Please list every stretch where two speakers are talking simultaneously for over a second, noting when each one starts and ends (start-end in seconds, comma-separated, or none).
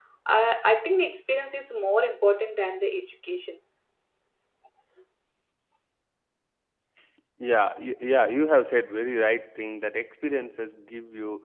none